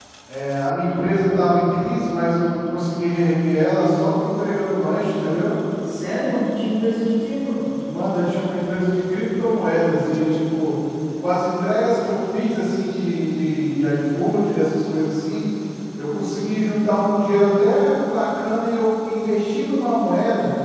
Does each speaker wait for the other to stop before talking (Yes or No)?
Yes